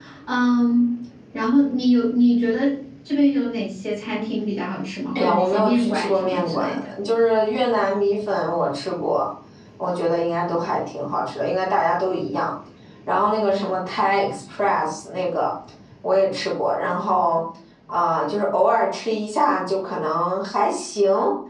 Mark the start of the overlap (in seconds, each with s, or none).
5.2 s